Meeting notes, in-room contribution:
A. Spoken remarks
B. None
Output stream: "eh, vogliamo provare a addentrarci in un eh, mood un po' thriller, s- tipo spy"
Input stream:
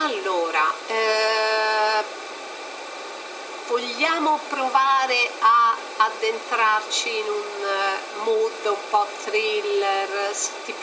B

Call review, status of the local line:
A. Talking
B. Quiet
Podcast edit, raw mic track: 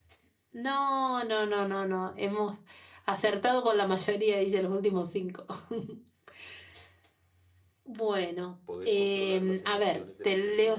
A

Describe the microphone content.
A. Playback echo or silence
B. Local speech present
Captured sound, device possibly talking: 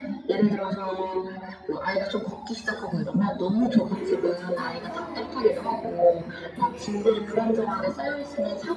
B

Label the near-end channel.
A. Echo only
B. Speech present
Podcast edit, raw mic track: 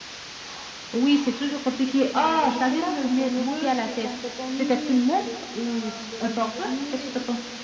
A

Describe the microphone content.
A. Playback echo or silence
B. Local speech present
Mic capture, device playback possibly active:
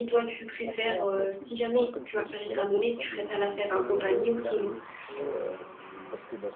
B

